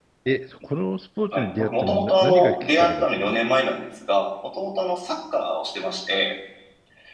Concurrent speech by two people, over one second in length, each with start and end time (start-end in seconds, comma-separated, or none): 1.3-3.3